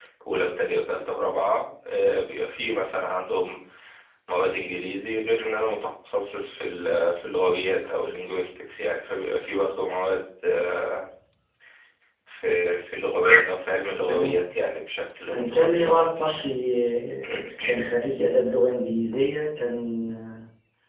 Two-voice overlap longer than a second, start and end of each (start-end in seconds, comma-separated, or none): 15.3-16.5